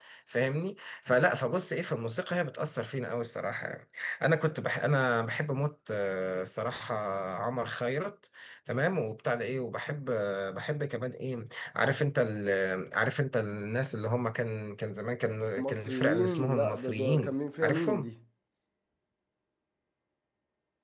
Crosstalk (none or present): present